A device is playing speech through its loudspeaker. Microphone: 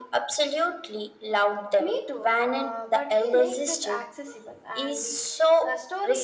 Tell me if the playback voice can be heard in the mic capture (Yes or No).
Yes